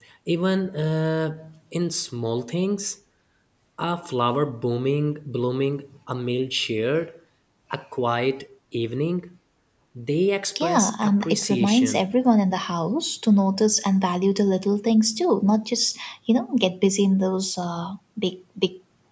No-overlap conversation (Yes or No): No